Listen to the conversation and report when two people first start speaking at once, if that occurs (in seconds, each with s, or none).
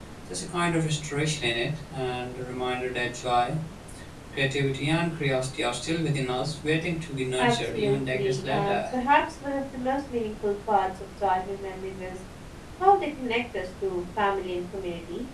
7.4 s